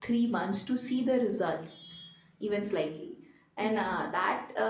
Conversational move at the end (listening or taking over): listening